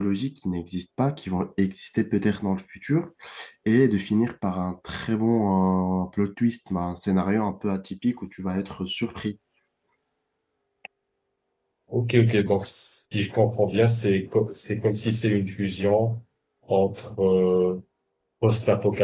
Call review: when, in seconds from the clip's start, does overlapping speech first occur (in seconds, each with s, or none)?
none